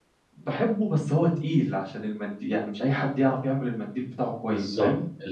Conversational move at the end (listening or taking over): taking over